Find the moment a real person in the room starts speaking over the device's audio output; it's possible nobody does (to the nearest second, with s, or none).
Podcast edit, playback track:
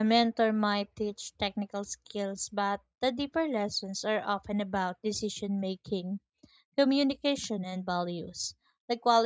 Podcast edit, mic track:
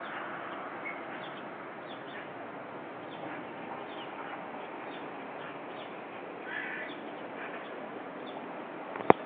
none